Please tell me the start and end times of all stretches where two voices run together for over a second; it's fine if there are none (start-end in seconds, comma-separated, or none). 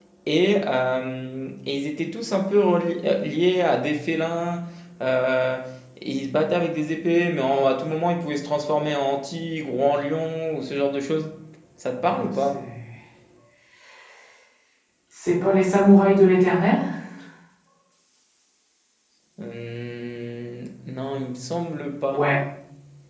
none